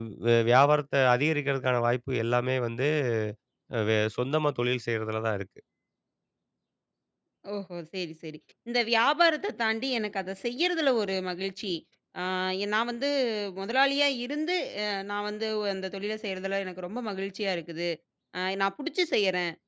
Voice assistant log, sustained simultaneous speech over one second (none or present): none